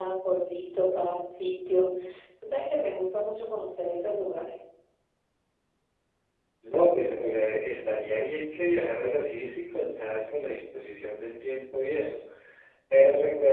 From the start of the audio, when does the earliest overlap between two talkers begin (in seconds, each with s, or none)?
none